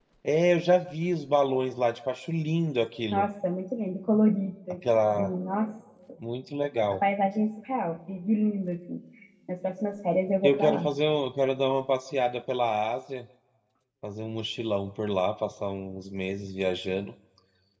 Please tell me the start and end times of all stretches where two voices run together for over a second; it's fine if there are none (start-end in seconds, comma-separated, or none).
none